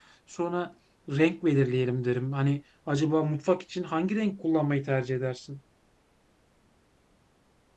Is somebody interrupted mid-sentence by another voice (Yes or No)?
No